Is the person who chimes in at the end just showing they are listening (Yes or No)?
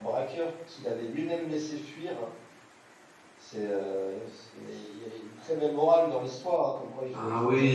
Yes